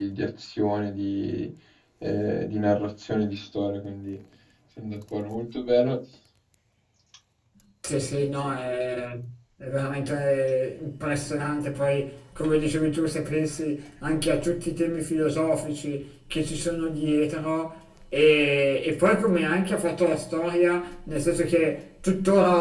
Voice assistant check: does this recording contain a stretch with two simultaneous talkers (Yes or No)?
No